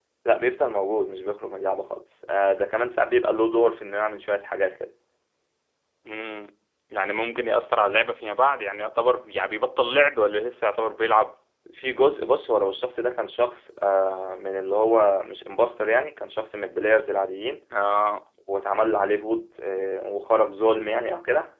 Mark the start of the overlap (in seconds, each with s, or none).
none